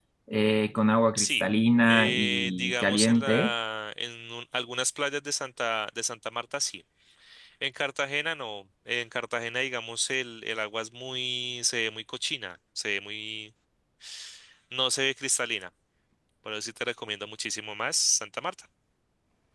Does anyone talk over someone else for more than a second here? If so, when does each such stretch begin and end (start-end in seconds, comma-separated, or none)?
1.9-3.5